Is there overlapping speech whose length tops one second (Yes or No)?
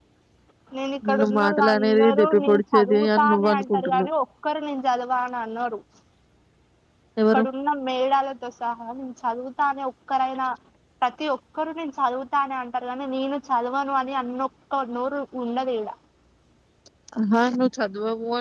Yes